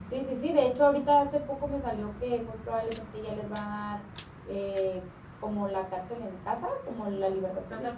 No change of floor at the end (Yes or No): No